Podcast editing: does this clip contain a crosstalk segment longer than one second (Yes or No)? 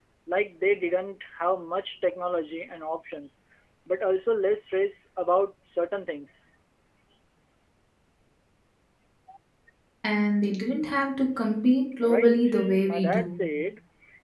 Yes